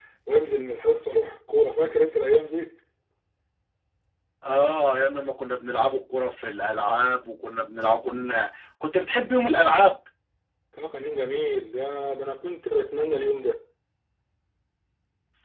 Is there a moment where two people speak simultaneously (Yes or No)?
No